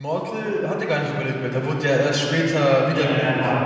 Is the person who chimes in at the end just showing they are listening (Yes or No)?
No